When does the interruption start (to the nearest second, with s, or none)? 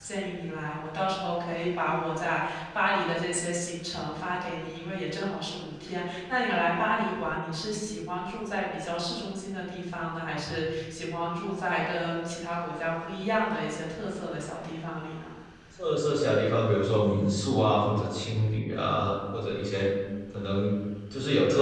none